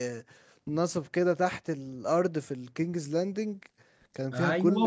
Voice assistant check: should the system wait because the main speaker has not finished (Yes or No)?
No